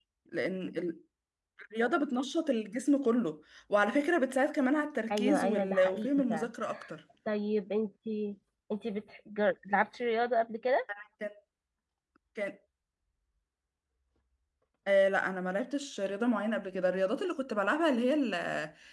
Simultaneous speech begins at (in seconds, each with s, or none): 5.1 s